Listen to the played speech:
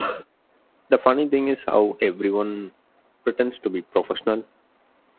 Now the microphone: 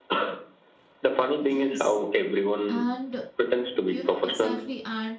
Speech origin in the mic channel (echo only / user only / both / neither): both